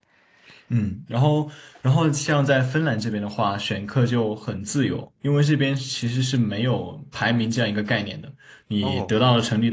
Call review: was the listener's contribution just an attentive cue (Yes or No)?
Yes